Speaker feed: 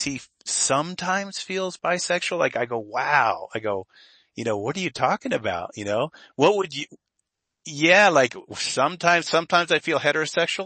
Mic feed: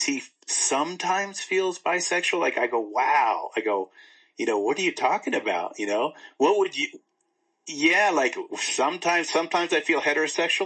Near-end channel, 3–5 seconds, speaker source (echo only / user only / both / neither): echo only